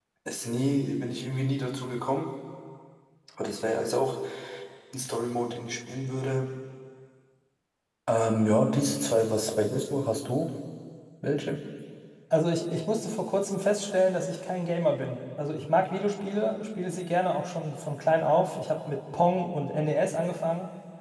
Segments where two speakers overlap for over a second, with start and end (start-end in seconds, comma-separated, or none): none